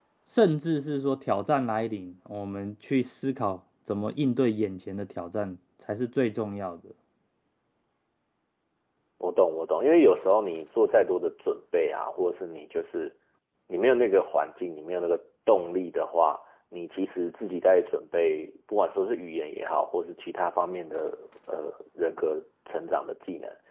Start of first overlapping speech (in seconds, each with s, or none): none